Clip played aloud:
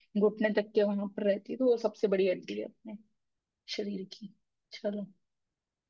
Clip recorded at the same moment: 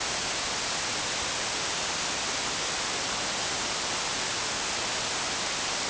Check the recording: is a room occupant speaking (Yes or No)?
No